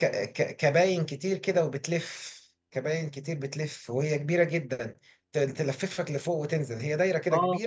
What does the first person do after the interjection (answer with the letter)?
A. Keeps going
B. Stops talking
B